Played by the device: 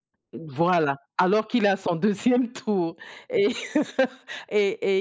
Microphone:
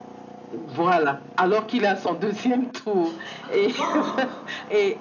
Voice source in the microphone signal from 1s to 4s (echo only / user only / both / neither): both